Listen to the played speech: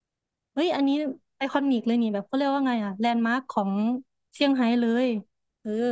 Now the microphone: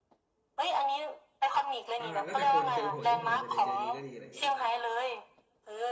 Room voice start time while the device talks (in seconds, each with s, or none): 2.0 s